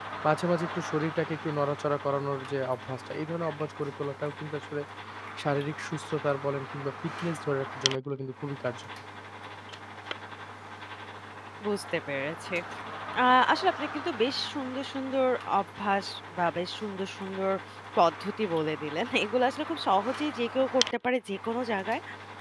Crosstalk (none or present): none